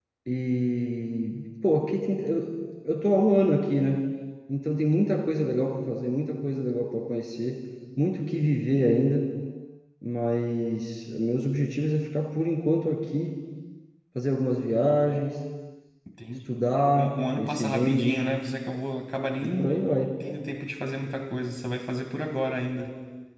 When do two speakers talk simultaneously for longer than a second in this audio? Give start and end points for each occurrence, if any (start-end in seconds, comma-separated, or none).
17.0-18.2